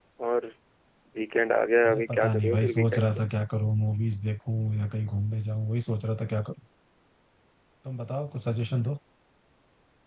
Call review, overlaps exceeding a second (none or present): present